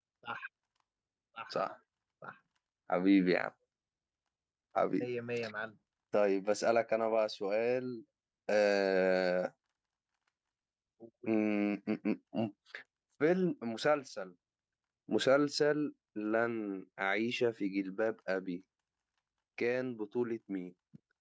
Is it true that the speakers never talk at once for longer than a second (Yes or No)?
Yes